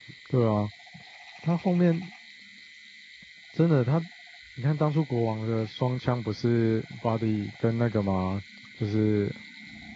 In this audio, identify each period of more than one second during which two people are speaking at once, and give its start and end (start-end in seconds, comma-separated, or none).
none